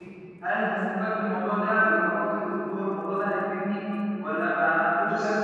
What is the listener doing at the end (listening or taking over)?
listening